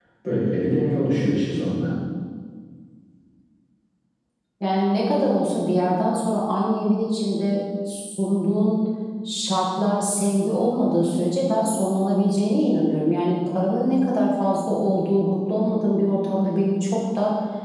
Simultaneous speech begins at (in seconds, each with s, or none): none